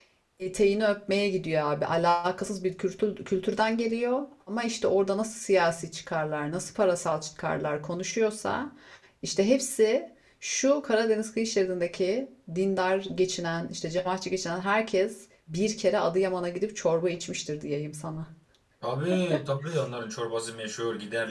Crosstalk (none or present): none